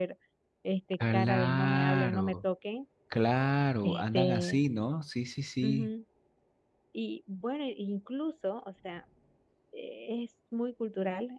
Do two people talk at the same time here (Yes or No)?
Yes